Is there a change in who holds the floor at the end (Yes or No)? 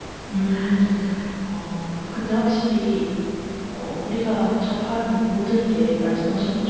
No